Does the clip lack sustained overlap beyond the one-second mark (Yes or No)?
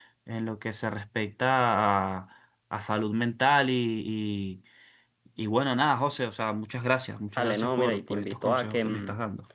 No